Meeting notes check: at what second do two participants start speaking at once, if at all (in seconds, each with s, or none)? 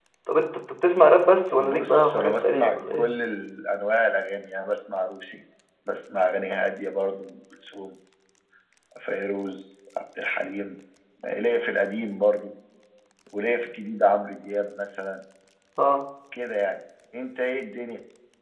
1.5 s